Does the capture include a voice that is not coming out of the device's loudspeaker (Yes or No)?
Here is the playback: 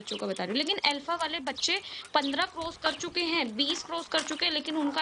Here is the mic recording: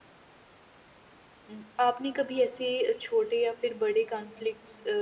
Yes